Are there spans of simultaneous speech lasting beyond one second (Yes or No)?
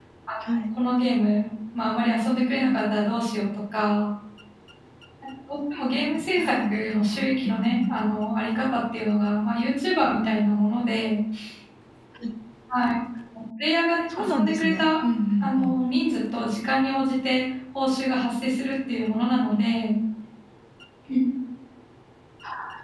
Yes